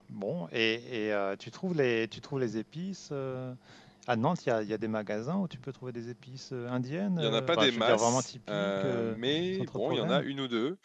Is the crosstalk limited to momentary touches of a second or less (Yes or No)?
No